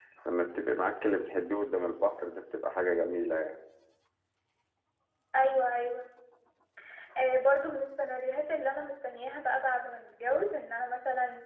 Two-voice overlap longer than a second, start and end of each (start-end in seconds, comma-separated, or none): none